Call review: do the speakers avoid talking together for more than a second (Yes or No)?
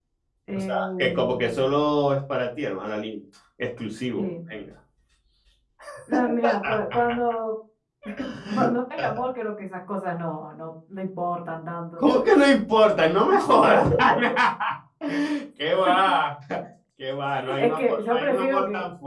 No